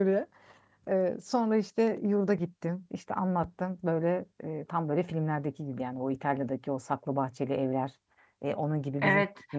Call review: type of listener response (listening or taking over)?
taking over